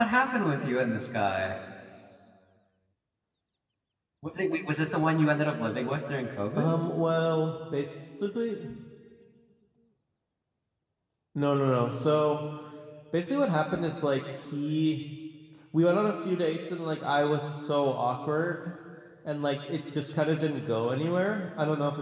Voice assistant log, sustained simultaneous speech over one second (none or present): none